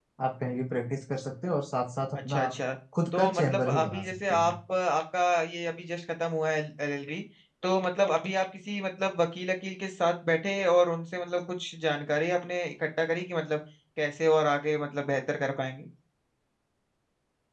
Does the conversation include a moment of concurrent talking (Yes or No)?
Yes